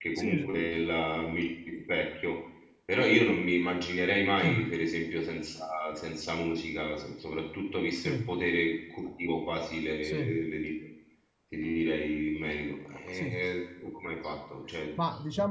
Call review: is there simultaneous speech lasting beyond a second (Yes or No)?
No